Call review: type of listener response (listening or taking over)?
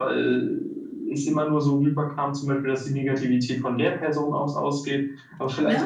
listening